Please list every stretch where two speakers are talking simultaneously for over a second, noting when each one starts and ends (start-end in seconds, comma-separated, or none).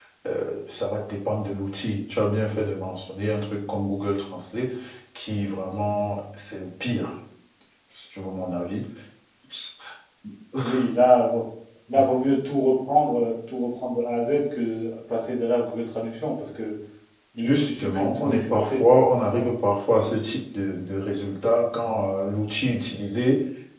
17.4-19.5